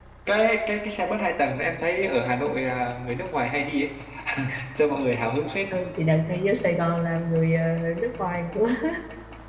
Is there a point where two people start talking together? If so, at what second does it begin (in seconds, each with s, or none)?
none